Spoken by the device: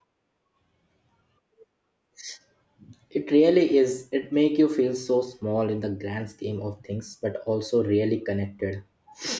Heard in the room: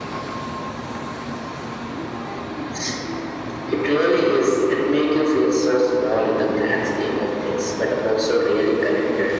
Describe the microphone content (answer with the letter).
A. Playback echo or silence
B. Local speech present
A